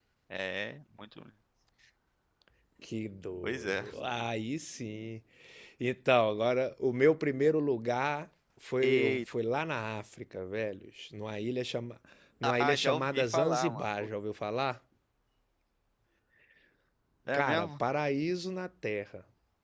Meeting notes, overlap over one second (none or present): present